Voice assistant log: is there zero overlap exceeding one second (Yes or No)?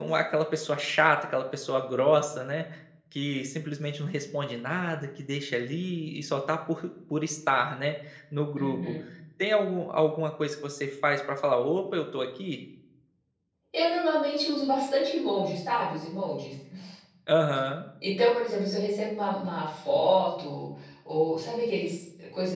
Yes